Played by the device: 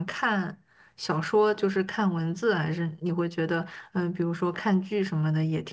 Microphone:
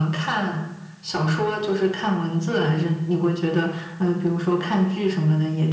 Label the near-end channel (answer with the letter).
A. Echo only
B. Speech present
A